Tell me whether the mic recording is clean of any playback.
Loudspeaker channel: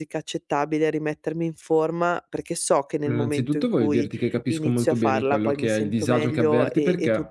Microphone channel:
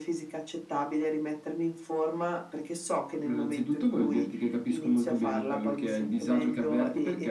No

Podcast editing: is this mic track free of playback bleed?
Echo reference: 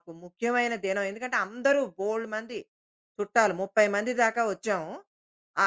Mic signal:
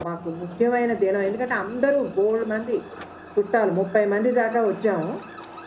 No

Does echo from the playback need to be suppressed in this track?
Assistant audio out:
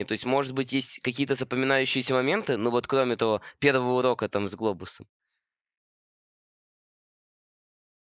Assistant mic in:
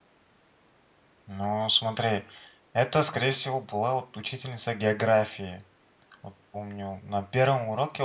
No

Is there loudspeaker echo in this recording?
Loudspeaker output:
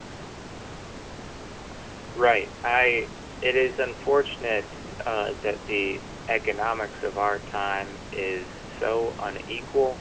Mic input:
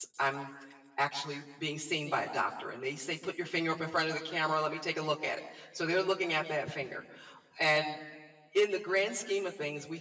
No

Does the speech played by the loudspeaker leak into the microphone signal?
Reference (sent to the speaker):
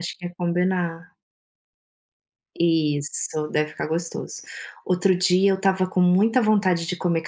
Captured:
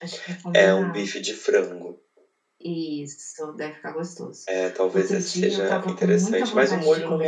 Yes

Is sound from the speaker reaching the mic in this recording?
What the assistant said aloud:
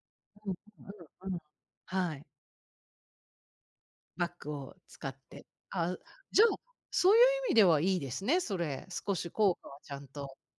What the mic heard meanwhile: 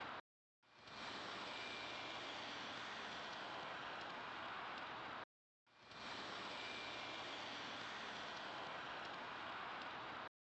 No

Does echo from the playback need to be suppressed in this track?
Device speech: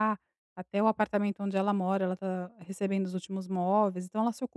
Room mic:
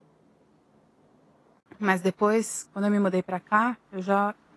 No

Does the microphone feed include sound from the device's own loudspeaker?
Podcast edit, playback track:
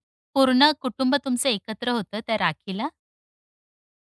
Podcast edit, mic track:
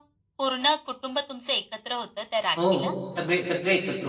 Yes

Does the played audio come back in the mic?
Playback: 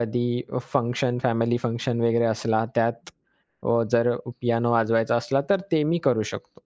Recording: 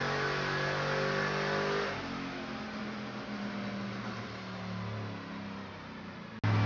No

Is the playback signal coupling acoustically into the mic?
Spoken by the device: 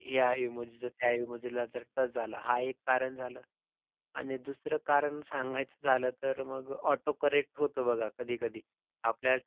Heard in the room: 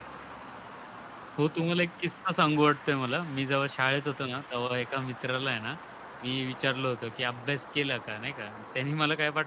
No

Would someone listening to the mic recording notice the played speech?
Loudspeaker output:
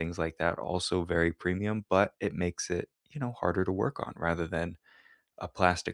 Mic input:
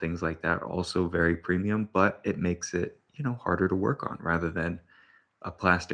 Yes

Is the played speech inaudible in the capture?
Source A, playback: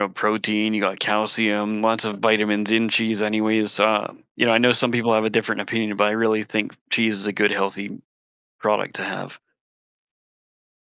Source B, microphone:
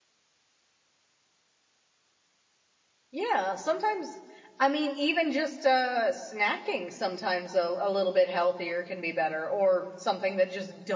Yes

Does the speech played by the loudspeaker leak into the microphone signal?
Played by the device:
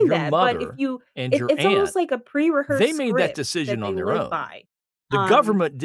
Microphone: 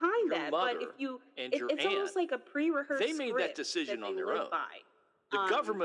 Yes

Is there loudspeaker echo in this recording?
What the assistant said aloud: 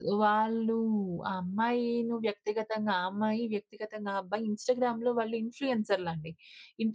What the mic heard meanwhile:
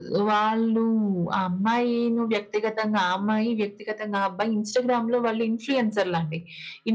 Yes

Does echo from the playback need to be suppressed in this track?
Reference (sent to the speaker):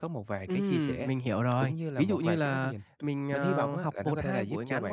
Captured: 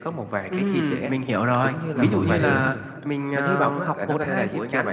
Yes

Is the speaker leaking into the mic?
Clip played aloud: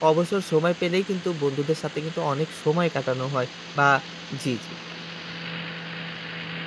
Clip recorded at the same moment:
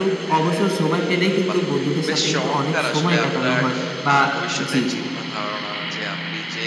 Yes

